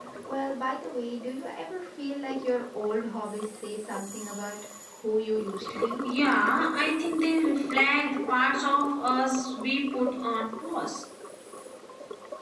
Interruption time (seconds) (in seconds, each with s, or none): none